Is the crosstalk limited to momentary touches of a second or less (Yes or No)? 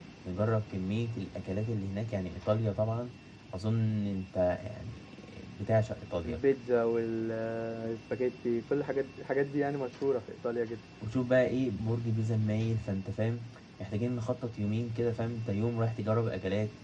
Yes